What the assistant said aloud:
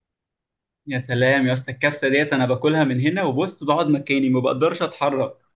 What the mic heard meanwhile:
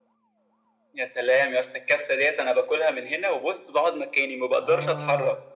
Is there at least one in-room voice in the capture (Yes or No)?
Yes